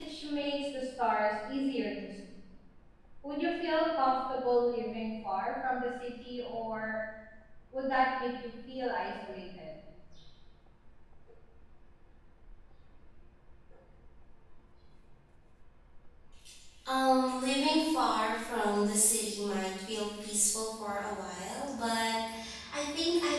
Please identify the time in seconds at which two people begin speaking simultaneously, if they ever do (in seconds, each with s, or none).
none